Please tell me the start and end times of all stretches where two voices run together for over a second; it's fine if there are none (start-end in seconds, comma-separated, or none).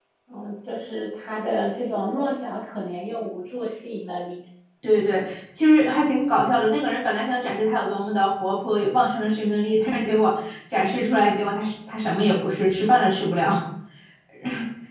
none